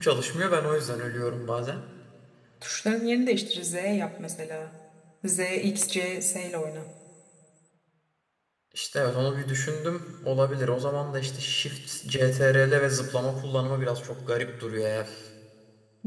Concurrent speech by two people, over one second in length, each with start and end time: none

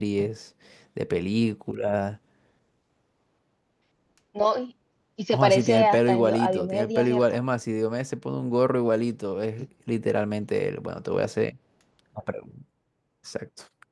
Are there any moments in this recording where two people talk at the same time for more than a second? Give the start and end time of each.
5.3-7.2

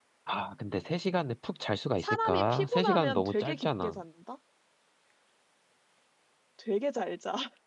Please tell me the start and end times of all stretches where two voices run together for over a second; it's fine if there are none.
2.0-4.0

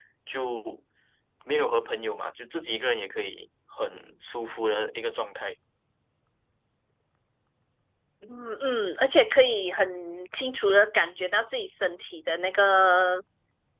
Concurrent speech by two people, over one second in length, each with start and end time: none

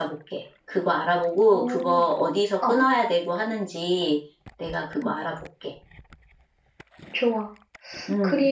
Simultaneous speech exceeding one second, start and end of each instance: none

